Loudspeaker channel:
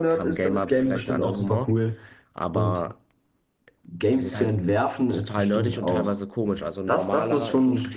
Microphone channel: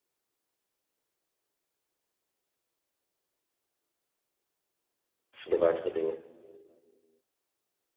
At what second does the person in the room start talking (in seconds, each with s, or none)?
5.3 s